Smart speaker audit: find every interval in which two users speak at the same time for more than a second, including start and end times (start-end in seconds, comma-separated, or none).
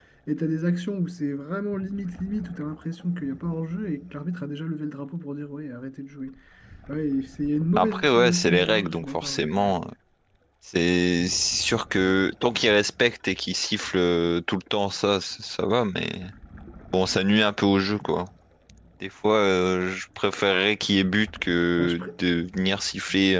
7.7-9.7